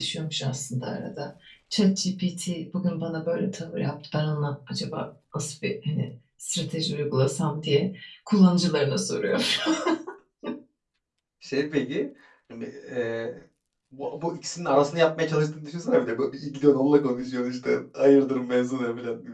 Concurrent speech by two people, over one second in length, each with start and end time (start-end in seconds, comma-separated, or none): none